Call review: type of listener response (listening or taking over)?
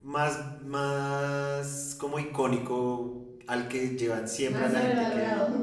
listening